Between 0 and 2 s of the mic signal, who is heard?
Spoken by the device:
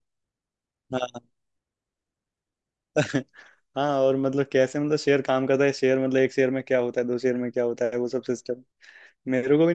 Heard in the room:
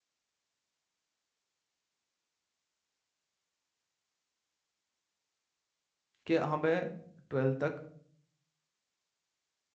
neither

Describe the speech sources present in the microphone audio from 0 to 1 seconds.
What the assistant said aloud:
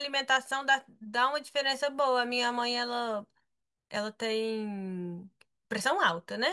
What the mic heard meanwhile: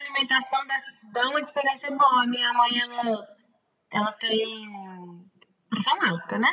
echo only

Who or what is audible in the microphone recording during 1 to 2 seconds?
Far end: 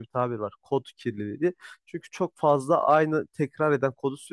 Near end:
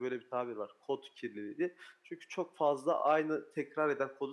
echo only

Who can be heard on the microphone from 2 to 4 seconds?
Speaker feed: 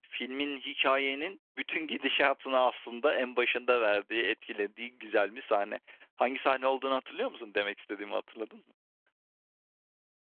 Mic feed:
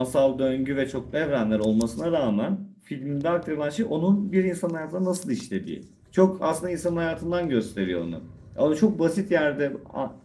user only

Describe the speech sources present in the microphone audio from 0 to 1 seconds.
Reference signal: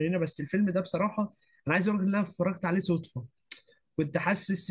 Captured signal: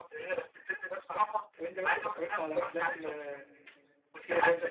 echo only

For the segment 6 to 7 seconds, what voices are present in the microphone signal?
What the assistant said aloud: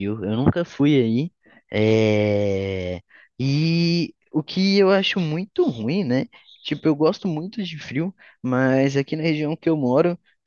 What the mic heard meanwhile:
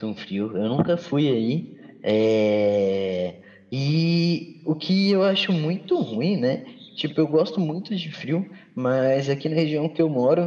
echo only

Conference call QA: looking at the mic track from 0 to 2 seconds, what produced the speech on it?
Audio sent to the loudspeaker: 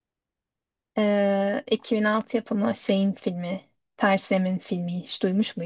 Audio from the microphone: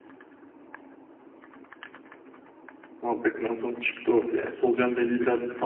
neither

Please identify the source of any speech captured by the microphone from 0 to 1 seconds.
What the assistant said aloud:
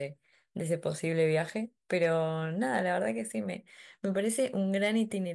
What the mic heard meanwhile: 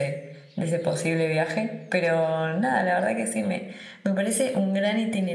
echo only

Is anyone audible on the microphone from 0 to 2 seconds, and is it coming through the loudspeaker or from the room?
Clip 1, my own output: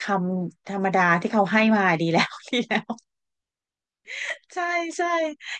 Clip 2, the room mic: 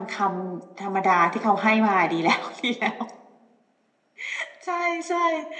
echo only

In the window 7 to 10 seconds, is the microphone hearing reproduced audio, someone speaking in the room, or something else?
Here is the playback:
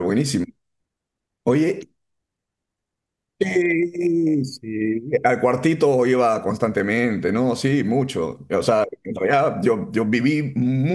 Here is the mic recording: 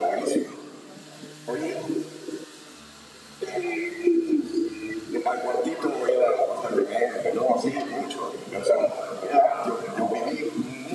echo only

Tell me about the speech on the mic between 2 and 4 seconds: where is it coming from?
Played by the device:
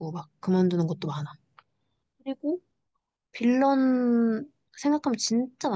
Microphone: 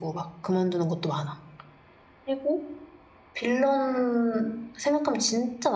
echo only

